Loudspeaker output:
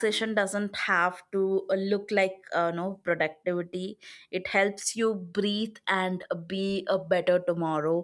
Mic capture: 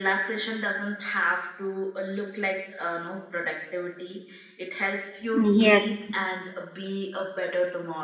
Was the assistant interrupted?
Yes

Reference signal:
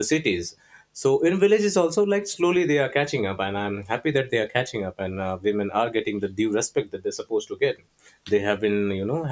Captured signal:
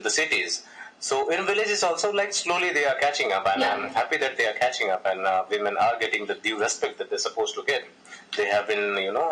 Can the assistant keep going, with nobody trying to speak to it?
No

